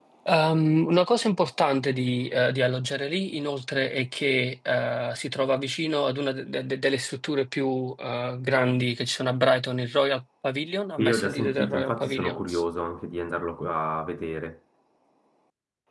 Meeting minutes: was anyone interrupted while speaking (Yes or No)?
Yes